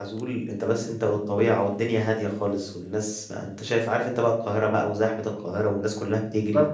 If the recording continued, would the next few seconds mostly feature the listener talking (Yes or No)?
No